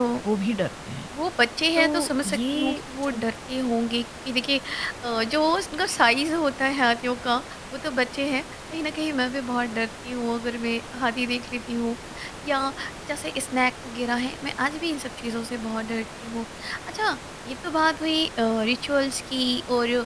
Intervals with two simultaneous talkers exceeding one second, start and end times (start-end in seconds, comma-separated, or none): 1.8-3.2